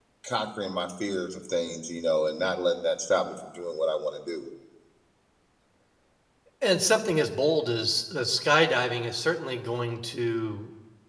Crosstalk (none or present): none